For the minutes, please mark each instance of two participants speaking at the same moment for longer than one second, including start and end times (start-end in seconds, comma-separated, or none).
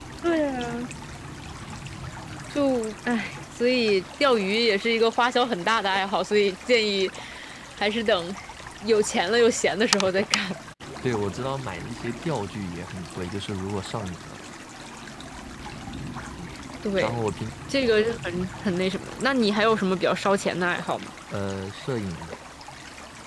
none